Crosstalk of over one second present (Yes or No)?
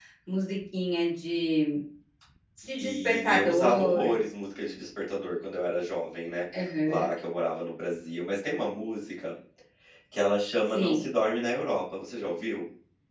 Yes